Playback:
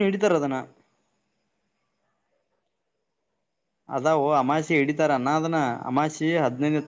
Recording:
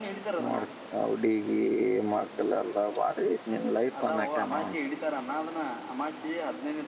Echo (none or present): present